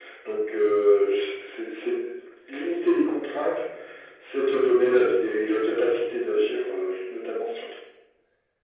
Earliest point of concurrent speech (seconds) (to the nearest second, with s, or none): none